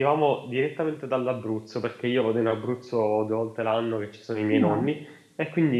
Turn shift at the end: No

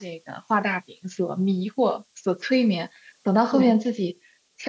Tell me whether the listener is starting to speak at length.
No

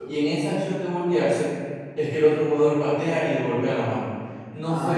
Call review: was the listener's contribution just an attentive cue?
No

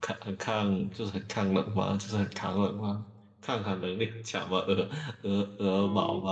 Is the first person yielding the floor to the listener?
Yes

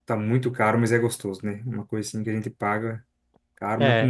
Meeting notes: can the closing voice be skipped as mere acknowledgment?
No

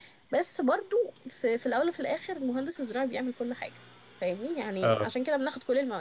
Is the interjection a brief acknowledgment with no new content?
Yes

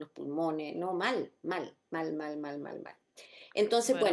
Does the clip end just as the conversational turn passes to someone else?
Yes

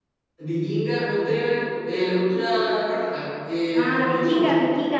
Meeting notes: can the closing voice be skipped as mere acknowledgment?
No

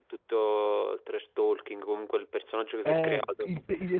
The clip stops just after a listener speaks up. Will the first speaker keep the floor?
No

